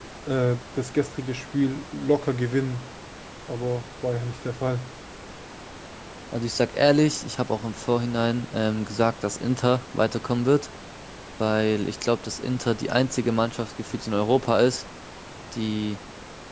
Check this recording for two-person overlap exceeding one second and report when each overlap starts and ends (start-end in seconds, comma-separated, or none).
none